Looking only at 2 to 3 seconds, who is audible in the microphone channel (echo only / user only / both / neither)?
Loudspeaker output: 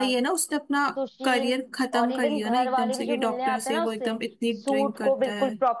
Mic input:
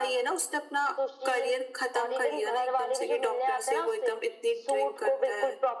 echo only